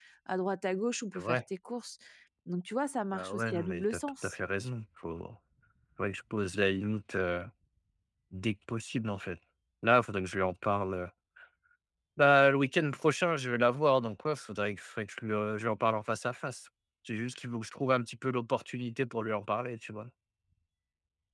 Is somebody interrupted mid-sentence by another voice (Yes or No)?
Yes